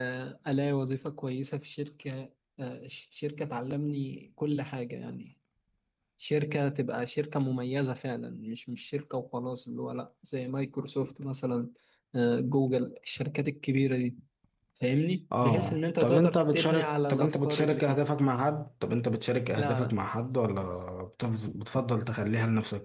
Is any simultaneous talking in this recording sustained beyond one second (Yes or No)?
Yes